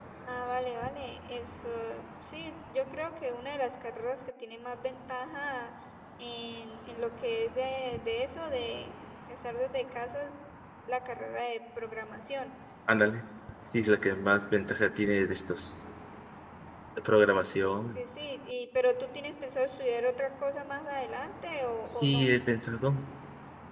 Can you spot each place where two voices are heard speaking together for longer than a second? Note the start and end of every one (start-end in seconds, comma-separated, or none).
none